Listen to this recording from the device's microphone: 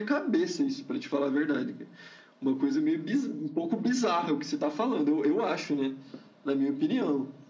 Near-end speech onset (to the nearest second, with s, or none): none